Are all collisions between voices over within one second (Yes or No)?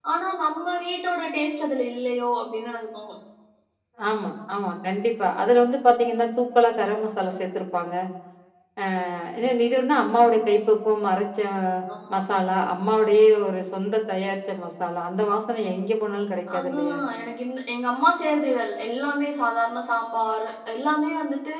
Yes